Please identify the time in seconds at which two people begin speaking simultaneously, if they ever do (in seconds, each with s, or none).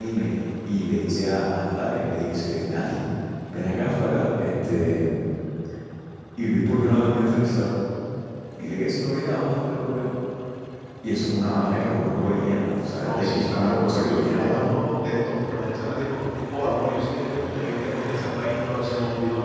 13.0 s